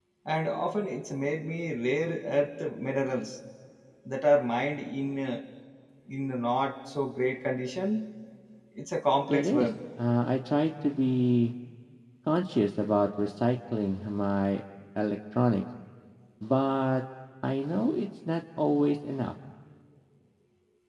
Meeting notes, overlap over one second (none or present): none